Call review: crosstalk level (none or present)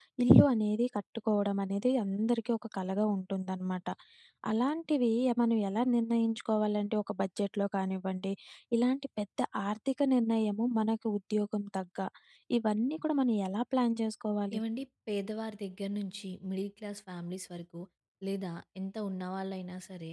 none